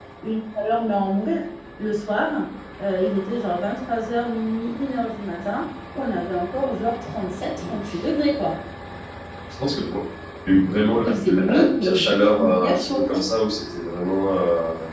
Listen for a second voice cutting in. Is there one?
Yes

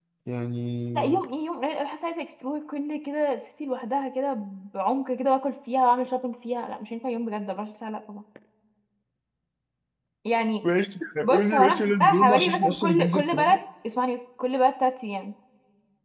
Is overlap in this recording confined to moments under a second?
No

